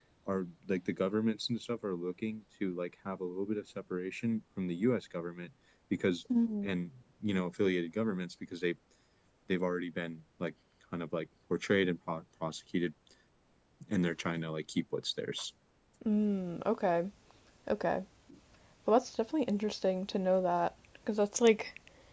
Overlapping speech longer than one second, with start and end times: none

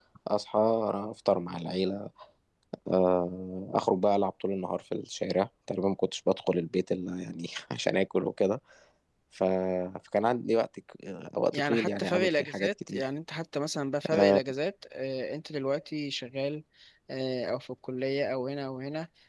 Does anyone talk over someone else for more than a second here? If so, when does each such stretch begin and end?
11.5-13.0

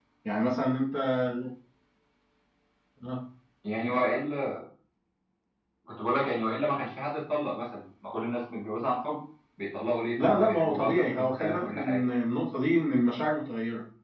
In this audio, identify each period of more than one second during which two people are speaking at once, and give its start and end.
10.2-12.0

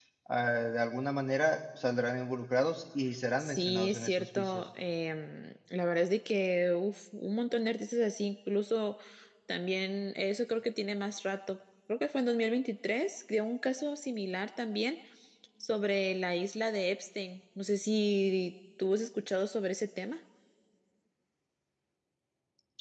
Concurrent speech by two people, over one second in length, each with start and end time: 3.4-4.6

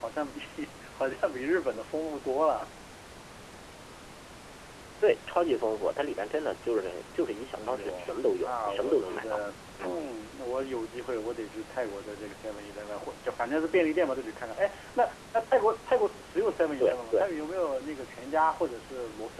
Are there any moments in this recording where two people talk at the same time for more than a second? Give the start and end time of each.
7.5-9.4

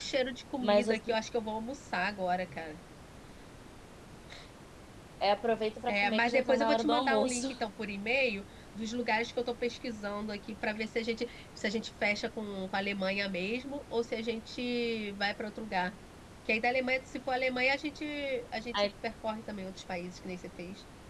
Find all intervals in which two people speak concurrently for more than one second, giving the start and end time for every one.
5.9-7.4

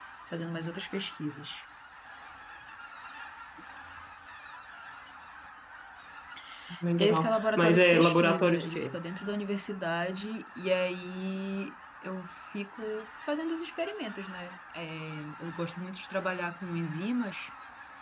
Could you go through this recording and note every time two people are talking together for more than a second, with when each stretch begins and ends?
7.0-8.9

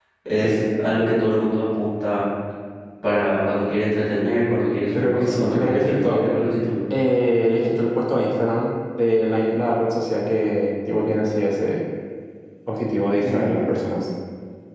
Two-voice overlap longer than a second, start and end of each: 4.9-6.2

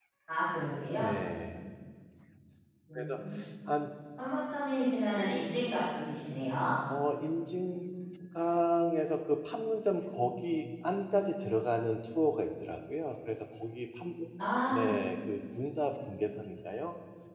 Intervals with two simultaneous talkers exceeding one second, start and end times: none

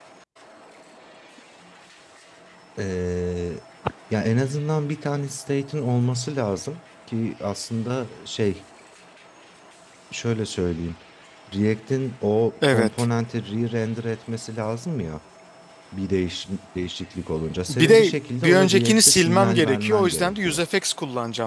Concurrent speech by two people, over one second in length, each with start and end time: 17.7-20.6

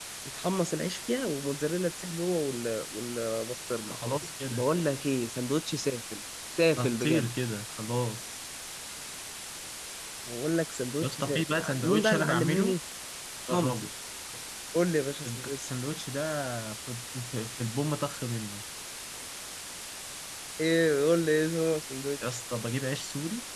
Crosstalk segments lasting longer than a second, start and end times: 11.0-12.7

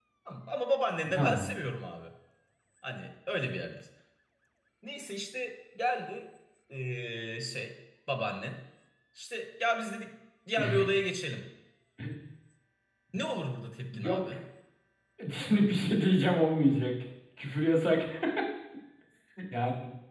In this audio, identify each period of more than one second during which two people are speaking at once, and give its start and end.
none

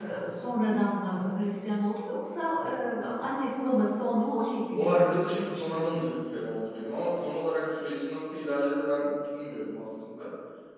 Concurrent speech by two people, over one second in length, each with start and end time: 4.8-6.0

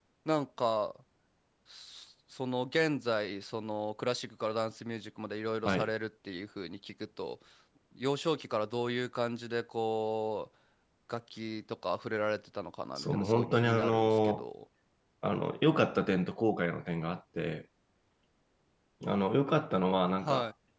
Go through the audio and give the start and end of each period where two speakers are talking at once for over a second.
13.0-14.4

